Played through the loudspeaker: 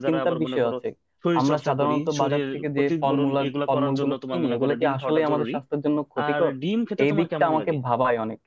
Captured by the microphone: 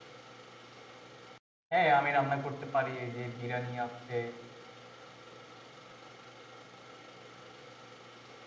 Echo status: none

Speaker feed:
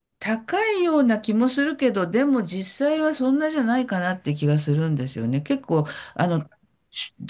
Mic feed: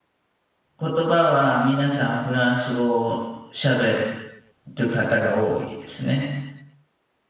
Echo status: none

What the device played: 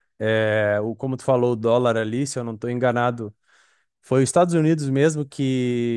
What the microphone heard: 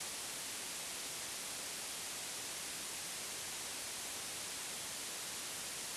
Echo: none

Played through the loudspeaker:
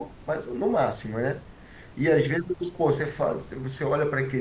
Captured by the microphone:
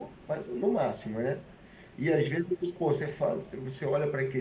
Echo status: present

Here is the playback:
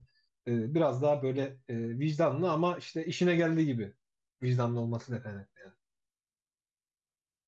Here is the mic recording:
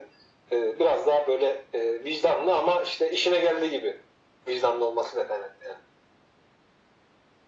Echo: present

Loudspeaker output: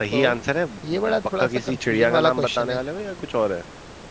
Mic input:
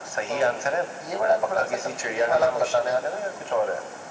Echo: present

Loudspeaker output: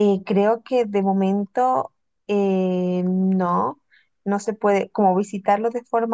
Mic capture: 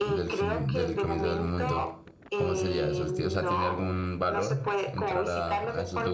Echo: present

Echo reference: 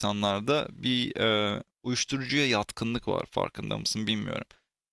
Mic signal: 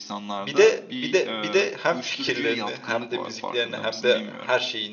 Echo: present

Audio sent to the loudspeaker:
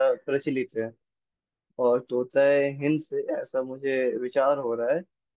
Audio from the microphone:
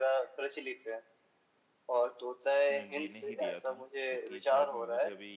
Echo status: present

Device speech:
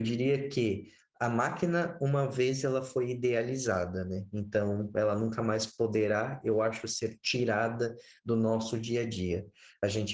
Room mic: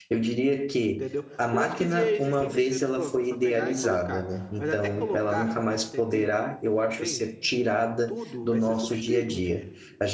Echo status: present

